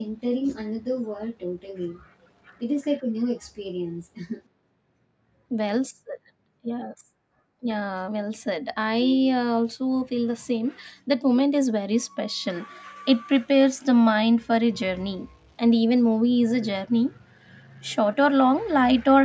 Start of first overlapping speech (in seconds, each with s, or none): none